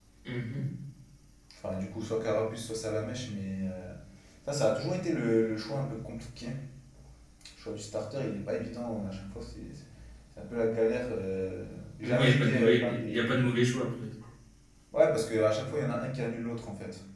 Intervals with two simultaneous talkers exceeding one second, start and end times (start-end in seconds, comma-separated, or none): 12.0-13.2